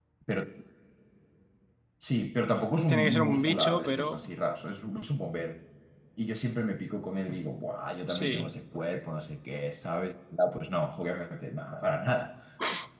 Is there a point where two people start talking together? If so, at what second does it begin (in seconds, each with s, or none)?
2.9 s